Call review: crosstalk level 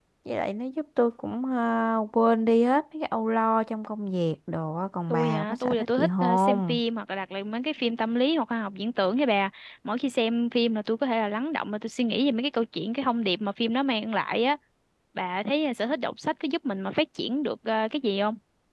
present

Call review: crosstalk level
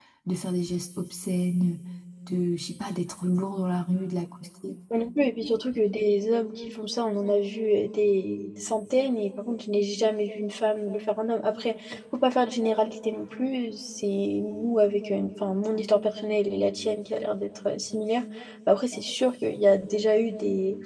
none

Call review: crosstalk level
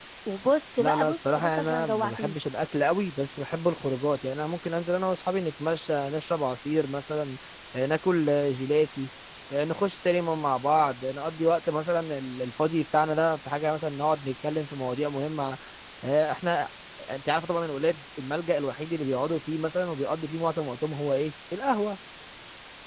present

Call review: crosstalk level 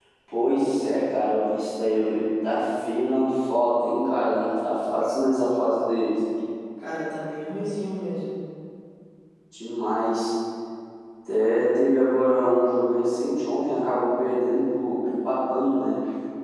none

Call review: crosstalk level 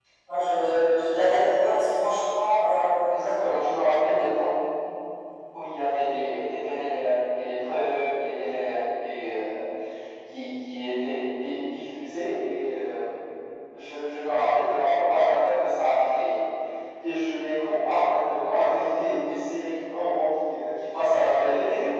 none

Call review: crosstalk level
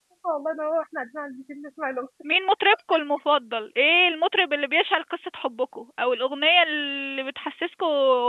none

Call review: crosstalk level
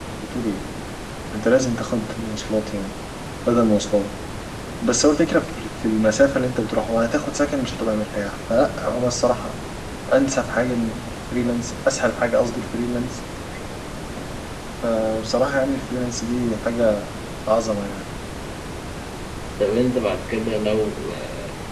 none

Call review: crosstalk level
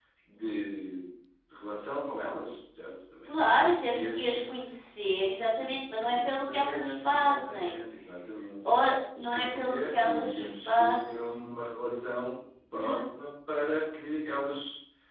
present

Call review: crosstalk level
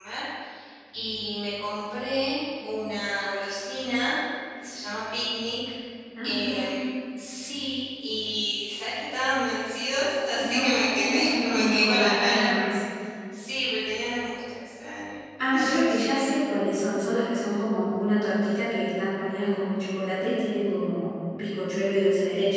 present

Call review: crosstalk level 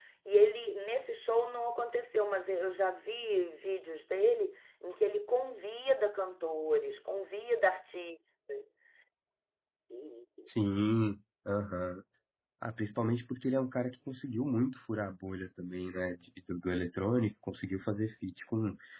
none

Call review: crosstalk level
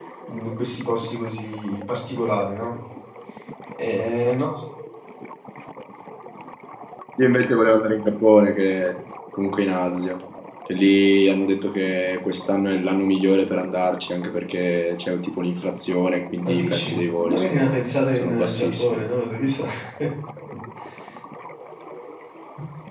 present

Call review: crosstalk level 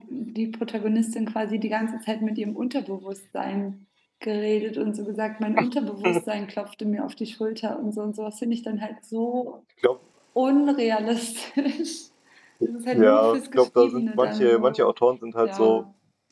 present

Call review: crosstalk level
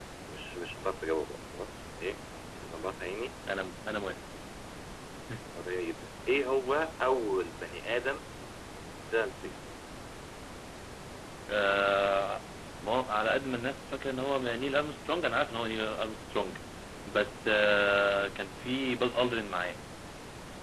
none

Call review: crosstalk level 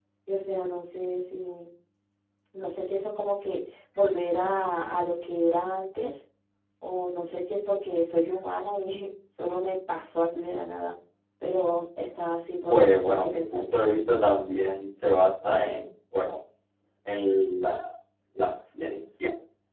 present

